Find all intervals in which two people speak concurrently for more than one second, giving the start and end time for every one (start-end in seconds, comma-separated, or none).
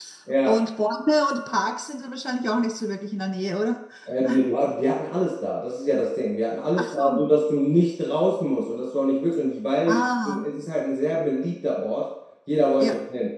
none